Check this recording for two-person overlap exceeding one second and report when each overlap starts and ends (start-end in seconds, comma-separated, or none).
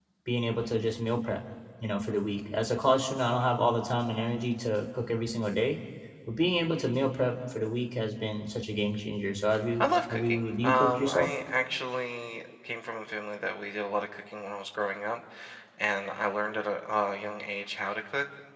9.8-11.3